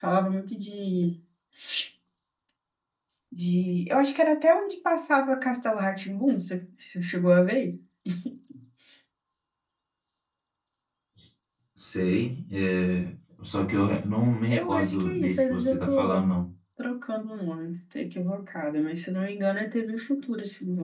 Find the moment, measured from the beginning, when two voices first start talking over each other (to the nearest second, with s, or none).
15 s